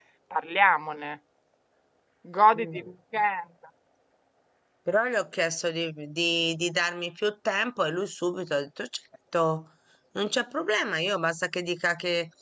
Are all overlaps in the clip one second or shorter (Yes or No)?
Yes